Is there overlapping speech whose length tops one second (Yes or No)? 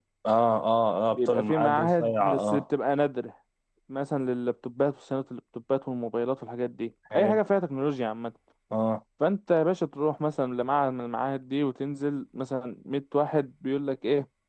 Yes